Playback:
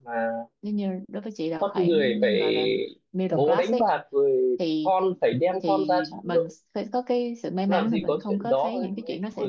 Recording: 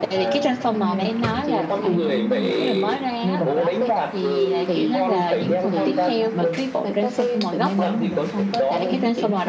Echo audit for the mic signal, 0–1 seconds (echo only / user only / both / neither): both